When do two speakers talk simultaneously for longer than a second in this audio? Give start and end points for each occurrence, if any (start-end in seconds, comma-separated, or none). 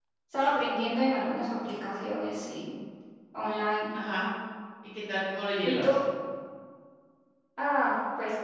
none